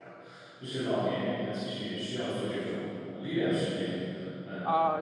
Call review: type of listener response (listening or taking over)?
taking over